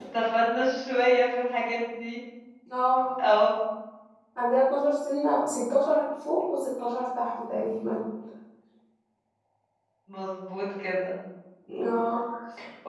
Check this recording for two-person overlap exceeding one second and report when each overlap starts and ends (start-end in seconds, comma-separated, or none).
none